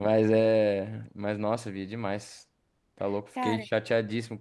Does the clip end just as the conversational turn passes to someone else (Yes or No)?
No